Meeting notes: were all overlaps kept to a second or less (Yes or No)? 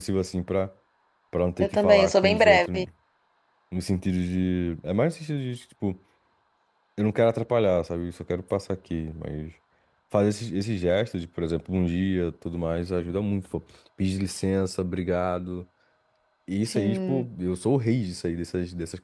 No